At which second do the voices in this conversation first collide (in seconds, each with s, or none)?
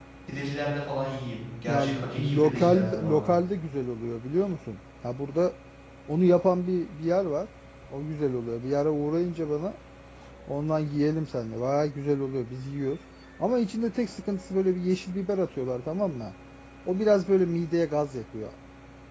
1.7 s